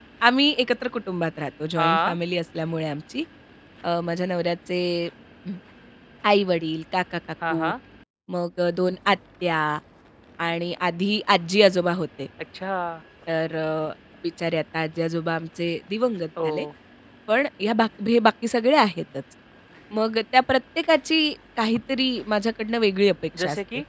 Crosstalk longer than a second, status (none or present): none